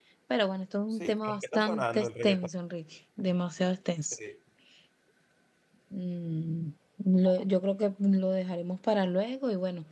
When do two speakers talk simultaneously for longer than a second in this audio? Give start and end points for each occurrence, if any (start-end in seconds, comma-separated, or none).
0.9-2.5